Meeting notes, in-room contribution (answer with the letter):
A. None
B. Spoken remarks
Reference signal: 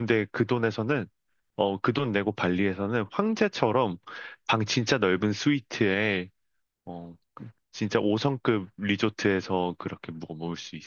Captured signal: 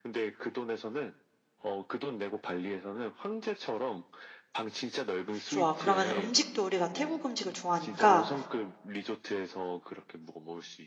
B